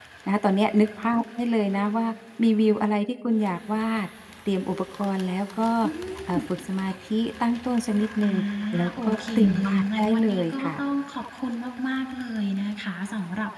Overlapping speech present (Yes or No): Yes